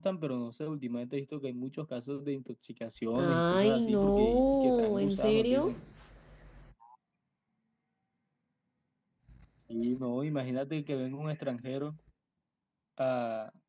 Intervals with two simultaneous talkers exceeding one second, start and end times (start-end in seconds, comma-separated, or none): 3.2-5.7